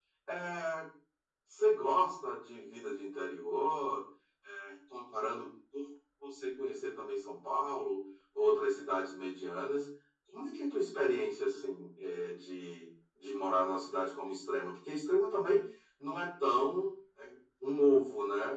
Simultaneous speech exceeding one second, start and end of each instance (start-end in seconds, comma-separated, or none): none